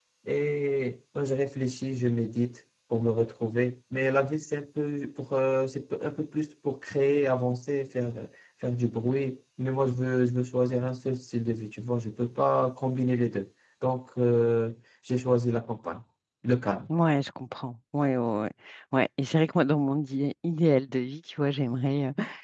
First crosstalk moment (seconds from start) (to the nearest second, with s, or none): none